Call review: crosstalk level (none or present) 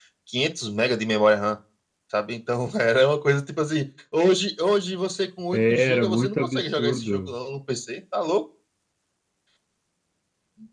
present